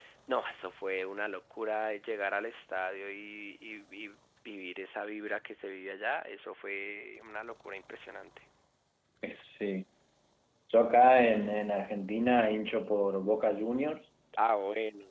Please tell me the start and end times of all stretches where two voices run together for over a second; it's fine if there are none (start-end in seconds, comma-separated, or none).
none